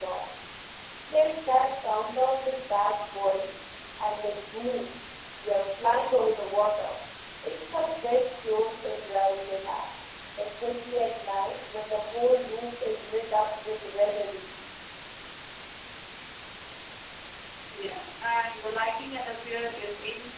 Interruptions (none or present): none